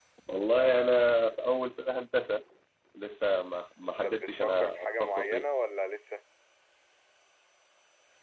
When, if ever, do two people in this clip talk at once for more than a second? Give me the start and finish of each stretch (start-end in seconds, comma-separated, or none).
4.0-5.4